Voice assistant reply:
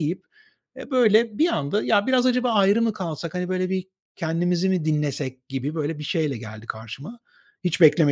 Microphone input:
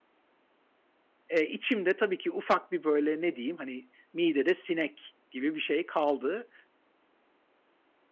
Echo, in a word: none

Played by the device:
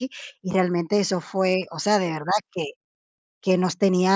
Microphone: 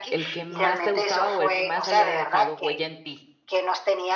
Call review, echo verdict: present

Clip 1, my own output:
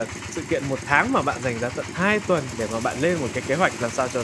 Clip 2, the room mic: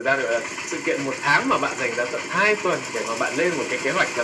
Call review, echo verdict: present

